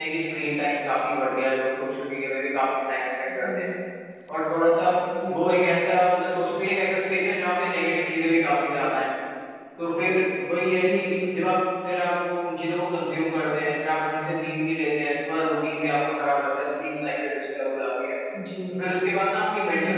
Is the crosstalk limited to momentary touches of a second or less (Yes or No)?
Yes